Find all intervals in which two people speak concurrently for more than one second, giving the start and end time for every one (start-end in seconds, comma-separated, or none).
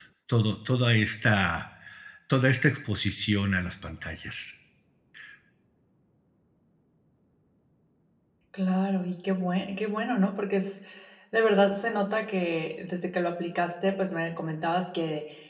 none